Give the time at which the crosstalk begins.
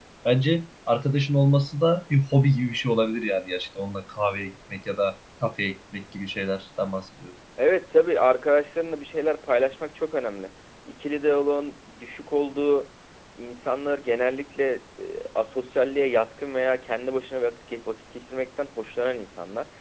none

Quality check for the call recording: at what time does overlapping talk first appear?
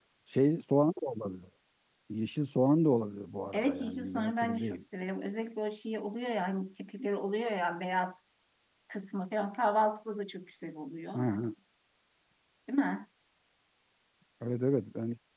3.5 s

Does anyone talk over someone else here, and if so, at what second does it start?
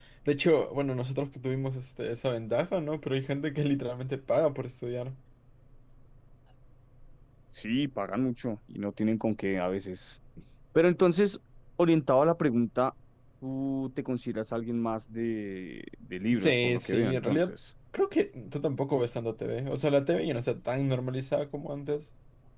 16.3 s

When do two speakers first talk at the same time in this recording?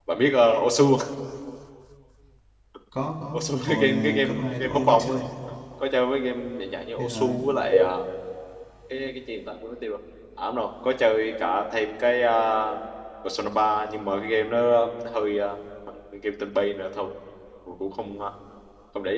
3.3 s

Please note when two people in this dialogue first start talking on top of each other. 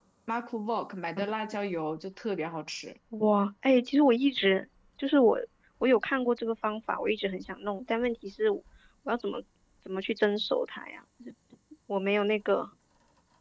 none

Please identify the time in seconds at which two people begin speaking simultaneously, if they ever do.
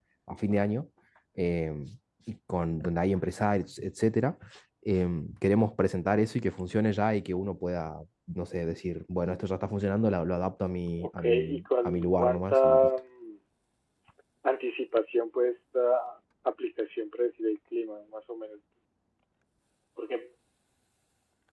11.0 s

